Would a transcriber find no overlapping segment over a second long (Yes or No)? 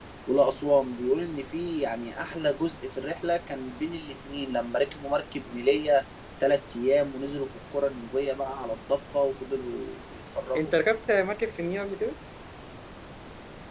Yes